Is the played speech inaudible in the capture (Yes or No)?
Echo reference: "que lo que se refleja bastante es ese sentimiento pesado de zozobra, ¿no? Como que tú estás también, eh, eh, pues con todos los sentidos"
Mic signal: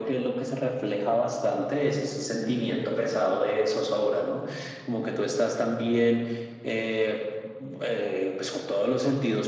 No